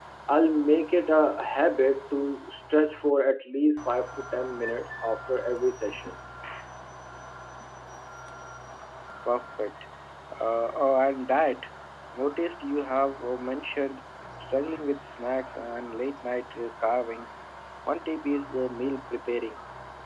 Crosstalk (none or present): none